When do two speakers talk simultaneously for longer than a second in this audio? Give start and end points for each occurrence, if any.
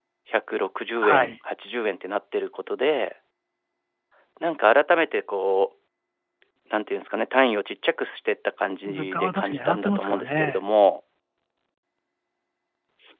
8.9-10.6

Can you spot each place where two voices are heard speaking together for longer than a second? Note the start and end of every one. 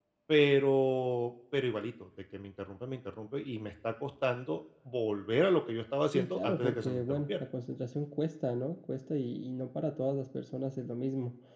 6.1-7.4

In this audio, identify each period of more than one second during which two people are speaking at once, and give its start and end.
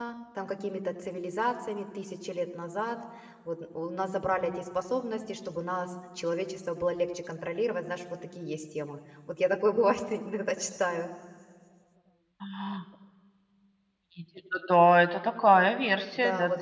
none

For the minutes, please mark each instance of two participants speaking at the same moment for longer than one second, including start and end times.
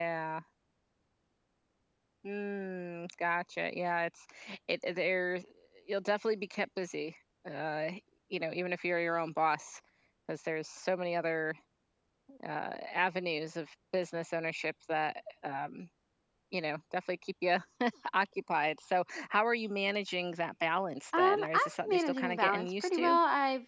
21.1-23.2

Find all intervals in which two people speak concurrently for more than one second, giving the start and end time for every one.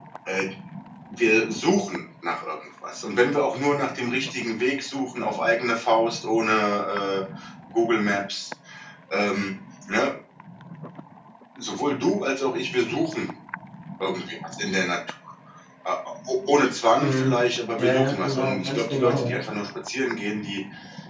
17.8-19.4

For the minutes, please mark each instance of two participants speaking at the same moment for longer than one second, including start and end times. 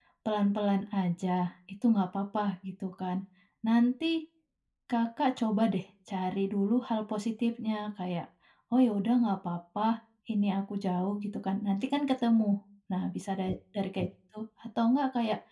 none

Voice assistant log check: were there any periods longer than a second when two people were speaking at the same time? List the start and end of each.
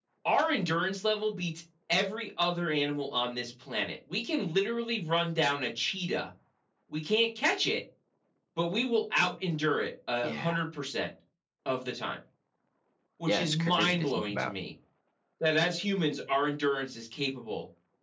13.3-14.5

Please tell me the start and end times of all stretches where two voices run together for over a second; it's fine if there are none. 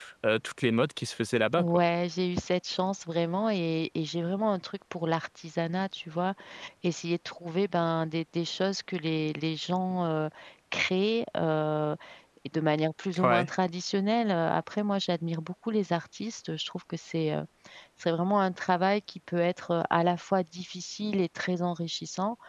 none

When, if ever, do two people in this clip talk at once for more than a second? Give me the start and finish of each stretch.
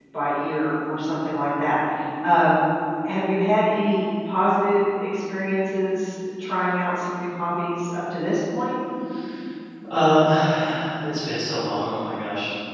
none

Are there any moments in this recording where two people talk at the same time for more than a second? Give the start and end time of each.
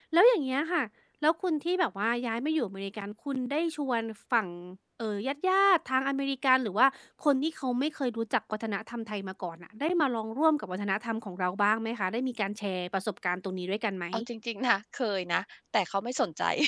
none

